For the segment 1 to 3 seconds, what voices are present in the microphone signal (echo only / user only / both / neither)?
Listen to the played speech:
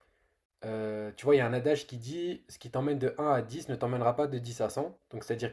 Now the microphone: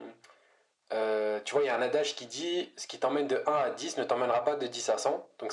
echo only